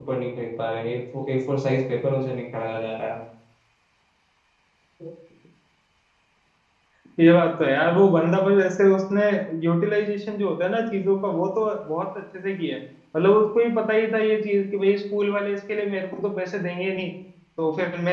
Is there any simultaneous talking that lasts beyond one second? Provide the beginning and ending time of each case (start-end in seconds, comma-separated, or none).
none